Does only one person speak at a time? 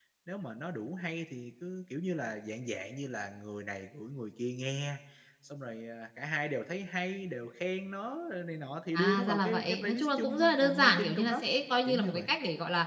No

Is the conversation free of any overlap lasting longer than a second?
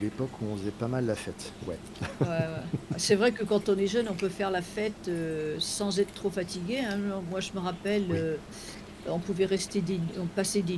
Yes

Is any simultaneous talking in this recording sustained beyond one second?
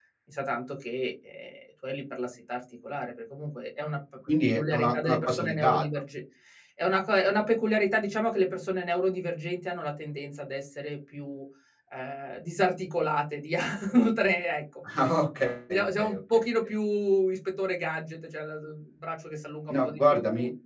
Yes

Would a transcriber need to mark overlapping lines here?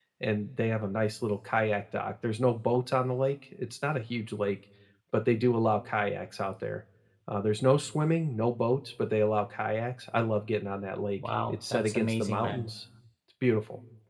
Yes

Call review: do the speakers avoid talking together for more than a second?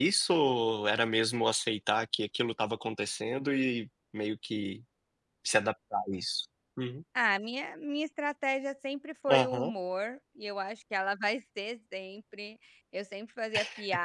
Yes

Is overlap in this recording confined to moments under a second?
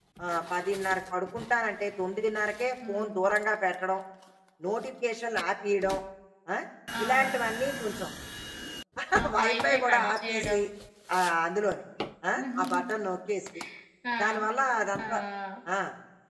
No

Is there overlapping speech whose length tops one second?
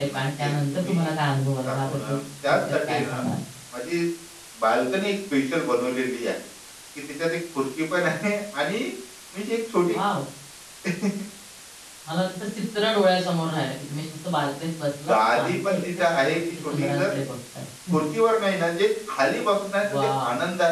Yes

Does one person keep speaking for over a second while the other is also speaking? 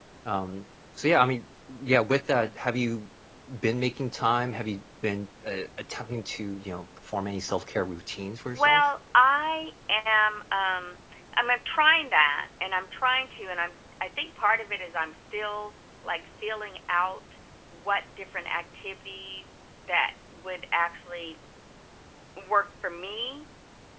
No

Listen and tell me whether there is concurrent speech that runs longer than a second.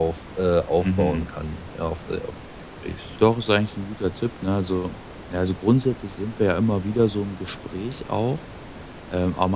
No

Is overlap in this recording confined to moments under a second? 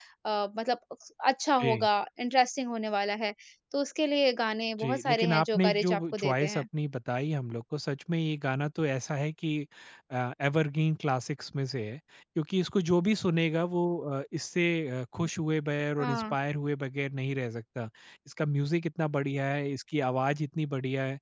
No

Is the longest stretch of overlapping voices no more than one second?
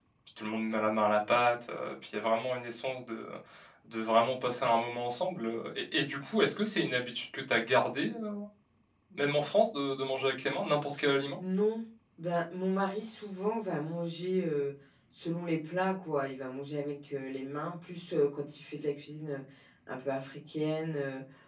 Yes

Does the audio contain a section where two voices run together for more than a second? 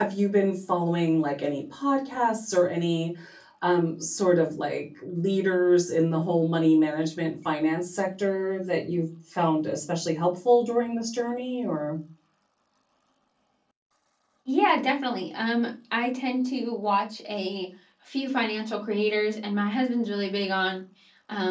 No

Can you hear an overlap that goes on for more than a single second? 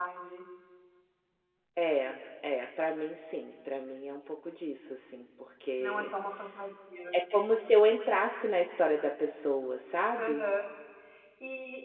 No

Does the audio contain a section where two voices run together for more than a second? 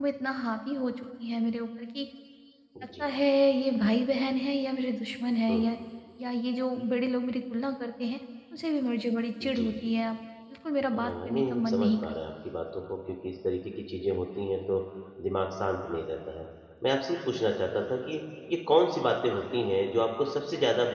Yes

